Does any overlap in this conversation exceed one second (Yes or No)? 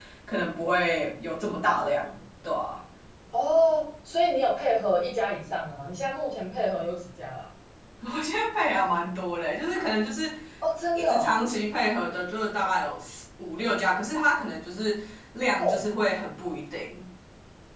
No